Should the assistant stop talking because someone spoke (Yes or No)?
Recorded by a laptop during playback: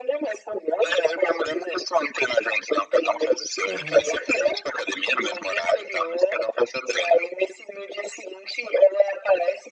Yes